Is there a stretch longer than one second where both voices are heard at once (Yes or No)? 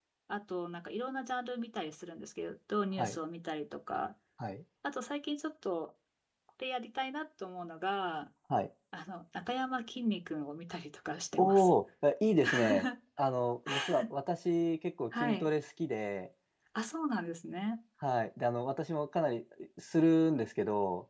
No